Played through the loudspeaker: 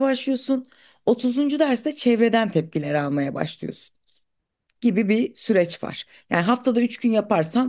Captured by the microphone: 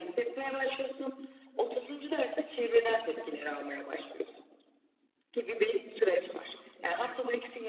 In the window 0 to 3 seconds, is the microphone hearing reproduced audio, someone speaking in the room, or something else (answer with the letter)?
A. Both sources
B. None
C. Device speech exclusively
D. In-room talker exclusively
C